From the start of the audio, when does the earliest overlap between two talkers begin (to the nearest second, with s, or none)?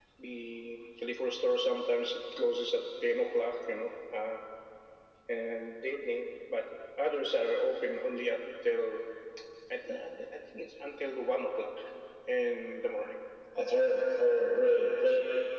none